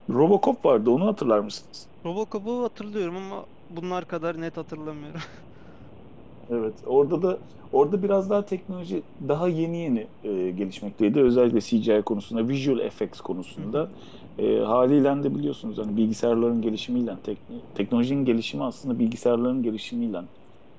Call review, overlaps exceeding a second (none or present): none